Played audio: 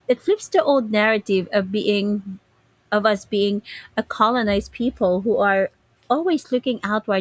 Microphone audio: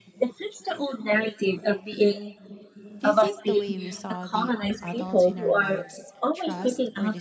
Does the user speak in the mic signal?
Yes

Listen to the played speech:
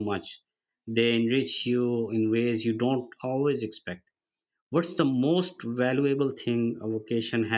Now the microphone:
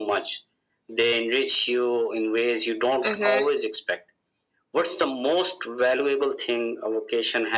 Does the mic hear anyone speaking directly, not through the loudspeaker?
Yes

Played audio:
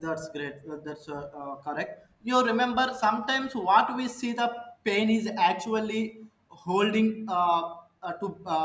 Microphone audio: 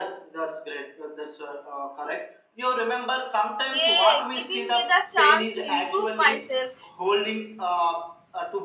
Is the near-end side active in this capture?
Yes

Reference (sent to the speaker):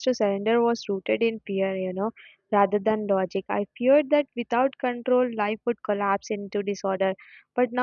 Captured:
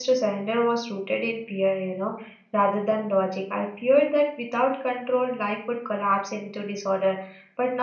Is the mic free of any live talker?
Yes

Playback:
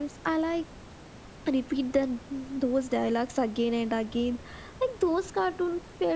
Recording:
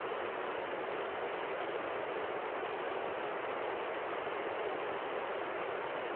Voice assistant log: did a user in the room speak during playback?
No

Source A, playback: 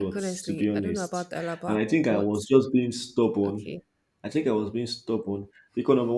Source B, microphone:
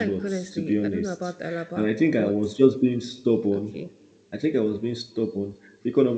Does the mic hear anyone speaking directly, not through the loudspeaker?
No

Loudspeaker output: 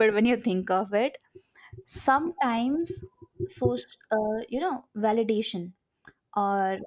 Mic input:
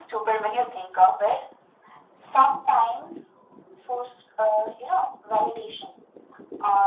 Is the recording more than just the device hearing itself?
No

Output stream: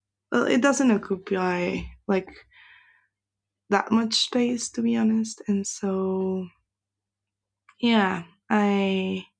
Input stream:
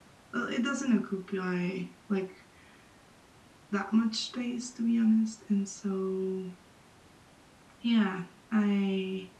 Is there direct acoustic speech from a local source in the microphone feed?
No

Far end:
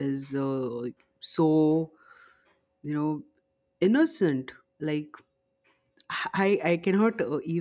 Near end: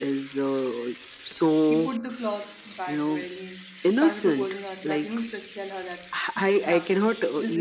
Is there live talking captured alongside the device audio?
Yes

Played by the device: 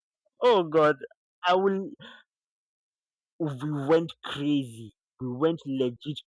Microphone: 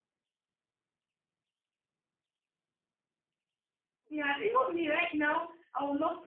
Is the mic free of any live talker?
No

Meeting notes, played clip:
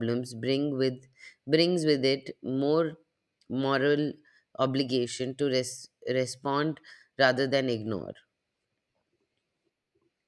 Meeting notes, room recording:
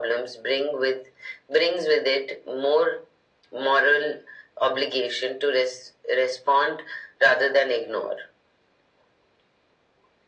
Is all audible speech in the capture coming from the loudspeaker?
Yes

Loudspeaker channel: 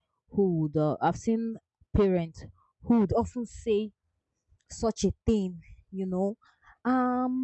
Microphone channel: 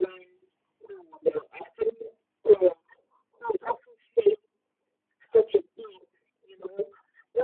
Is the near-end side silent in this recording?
Yes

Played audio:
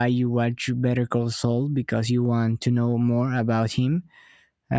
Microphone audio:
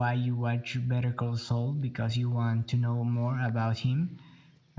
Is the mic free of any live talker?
Yes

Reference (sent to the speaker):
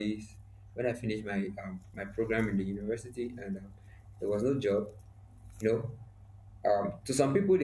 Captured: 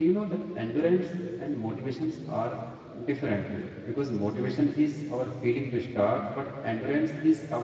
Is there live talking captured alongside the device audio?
Yes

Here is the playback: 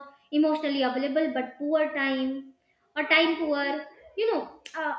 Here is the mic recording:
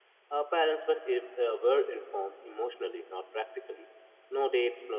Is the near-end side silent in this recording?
No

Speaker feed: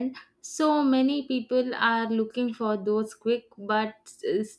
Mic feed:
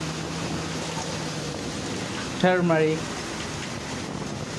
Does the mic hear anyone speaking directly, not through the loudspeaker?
Yes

